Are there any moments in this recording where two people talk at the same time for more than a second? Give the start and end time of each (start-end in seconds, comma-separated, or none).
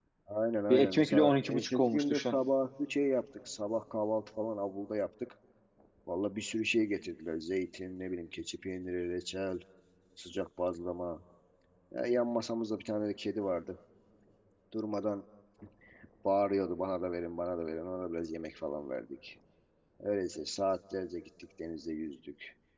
0.7-2.4